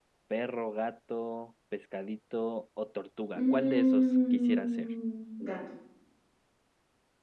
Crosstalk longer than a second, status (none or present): present